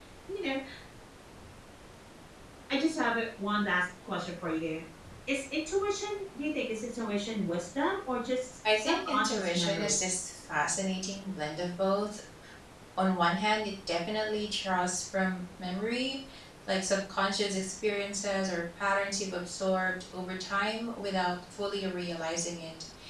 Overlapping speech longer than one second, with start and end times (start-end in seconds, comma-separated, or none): 8.8-10.0